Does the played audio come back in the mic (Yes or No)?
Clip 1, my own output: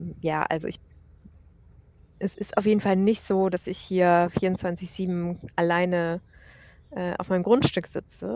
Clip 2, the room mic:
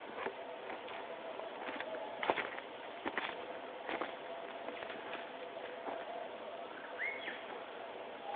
No